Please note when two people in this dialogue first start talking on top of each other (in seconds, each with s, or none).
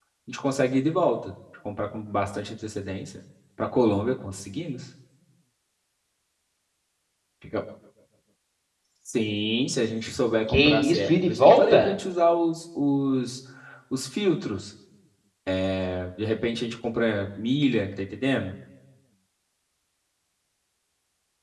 10.5 s